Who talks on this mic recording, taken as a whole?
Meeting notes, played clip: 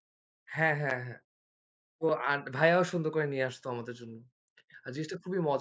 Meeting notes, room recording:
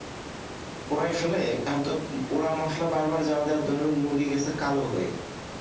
user only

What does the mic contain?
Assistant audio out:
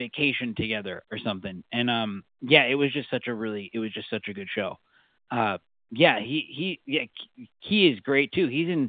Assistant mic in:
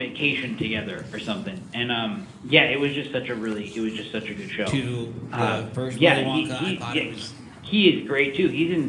both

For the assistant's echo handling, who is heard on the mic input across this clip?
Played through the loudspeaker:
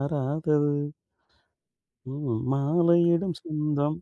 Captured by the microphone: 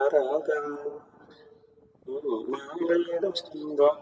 echo only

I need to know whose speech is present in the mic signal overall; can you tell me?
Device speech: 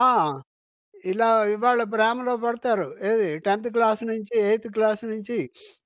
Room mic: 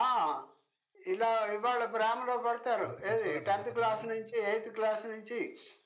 both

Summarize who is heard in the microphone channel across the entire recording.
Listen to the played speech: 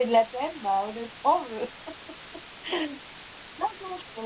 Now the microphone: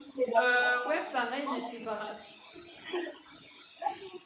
both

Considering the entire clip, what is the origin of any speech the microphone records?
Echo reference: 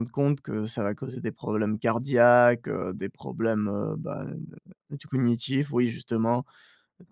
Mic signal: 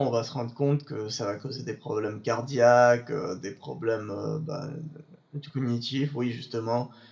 echo only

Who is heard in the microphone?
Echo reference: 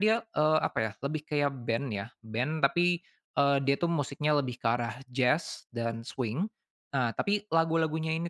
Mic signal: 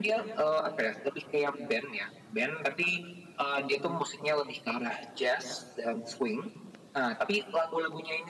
echo only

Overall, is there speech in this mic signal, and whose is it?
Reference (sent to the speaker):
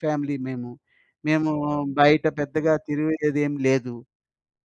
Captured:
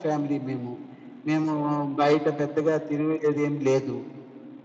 echo only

